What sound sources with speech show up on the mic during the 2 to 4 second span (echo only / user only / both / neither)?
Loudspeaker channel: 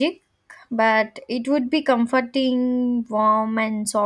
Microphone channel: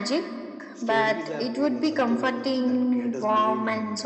both